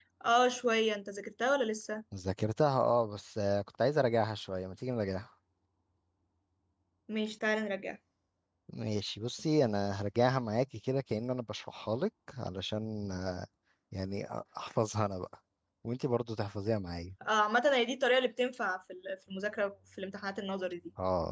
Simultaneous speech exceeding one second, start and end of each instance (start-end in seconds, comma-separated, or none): none